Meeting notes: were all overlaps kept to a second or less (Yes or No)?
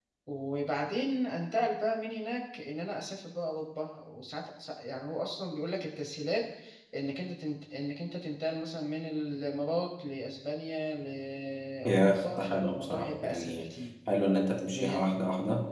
No